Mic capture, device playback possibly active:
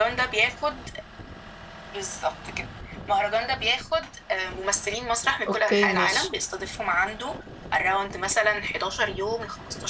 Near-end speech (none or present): present